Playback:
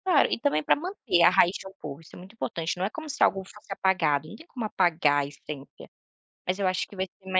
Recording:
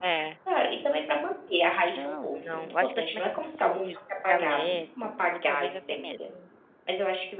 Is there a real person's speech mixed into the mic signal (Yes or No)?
Yes